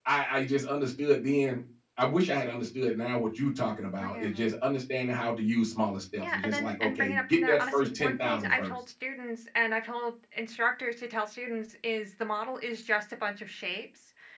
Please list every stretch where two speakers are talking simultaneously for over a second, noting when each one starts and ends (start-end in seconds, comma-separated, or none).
6.2-8.7